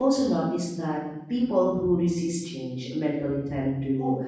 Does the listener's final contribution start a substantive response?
No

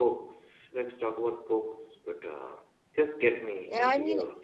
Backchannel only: No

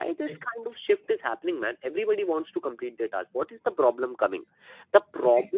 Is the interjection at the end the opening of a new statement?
No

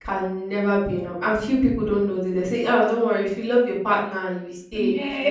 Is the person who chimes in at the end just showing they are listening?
No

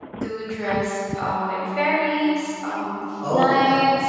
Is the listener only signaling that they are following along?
Yes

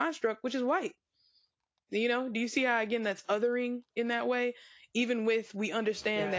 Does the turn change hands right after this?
No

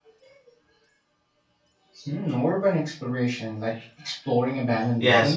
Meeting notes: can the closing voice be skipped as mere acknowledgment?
No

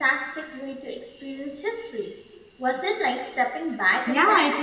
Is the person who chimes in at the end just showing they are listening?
No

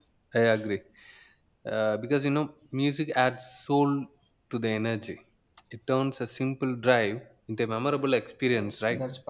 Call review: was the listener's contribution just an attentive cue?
No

